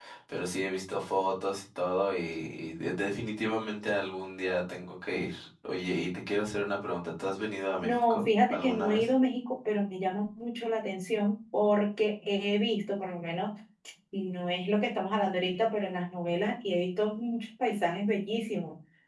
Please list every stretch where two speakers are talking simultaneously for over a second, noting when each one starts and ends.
7.8-9.1

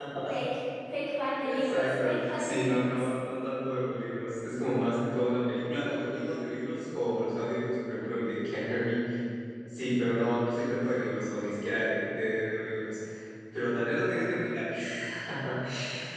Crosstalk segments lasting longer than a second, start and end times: 1.4-3.1

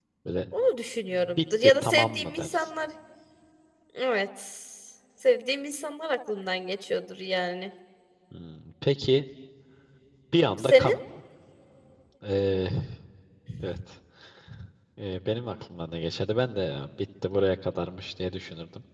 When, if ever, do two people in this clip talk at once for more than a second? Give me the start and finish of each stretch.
1.1-2.7

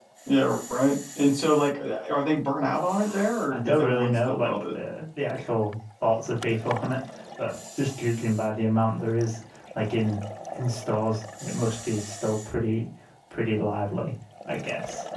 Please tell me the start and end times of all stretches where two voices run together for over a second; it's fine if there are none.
3.5-4.8

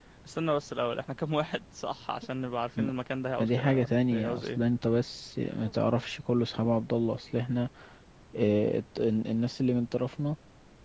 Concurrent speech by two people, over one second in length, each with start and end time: 3.4-4.6

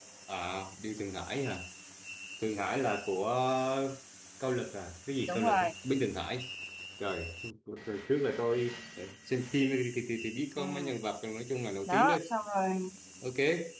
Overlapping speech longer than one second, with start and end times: none

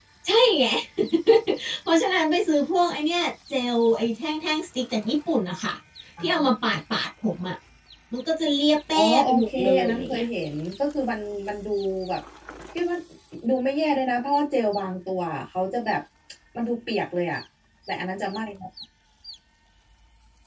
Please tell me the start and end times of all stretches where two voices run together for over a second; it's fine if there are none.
8.9-10.2

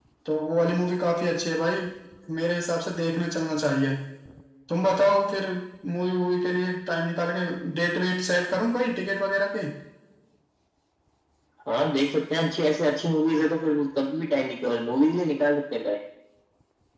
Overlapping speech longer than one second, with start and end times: none

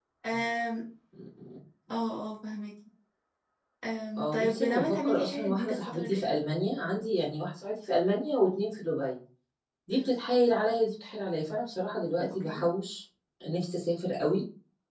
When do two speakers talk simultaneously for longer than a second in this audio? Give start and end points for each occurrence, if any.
4.2-6.3

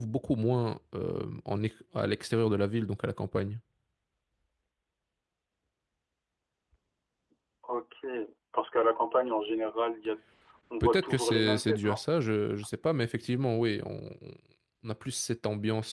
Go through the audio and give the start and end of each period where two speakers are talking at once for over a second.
10.8-12.0

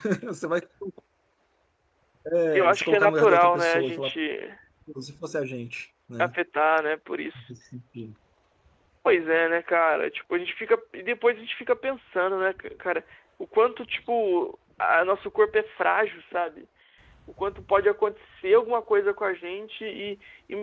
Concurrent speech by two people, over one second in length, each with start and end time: 2.5-4.1

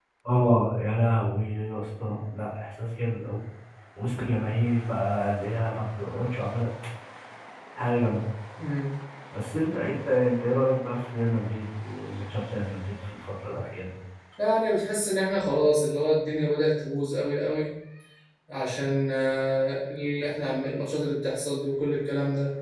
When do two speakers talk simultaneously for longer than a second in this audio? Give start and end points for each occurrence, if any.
none

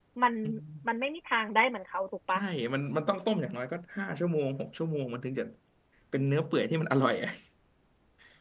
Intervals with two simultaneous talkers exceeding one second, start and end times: none

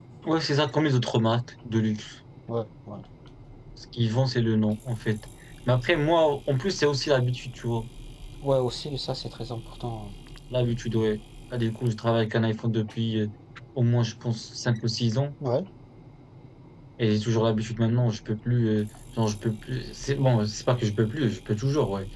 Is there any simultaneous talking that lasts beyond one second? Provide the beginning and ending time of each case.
none

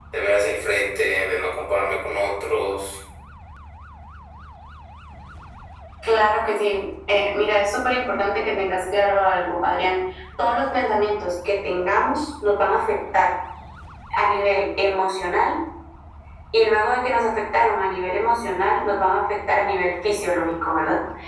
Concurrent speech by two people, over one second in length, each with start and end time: none

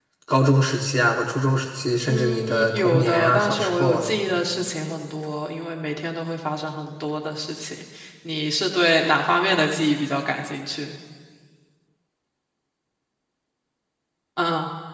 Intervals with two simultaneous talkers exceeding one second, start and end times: 2.1-4.1

